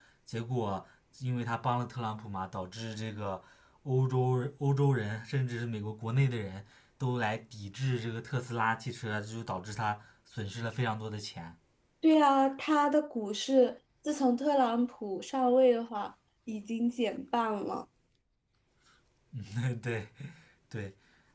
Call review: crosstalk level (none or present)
none